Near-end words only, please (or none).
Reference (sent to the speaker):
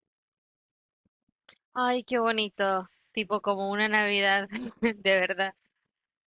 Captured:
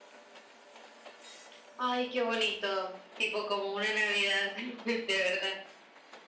none